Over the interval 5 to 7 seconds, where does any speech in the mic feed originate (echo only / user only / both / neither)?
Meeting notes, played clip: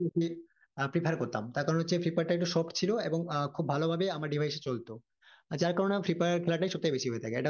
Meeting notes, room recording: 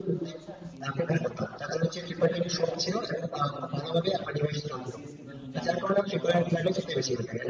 both